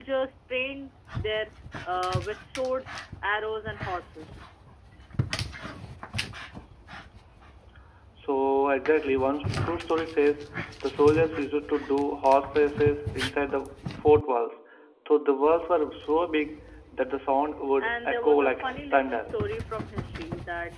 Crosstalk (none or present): present